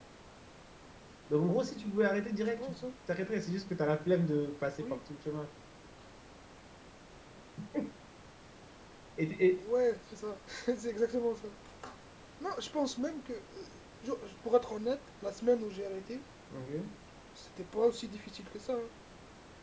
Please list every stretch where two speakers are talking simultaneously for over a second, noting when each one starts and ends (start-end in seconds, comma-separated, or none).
none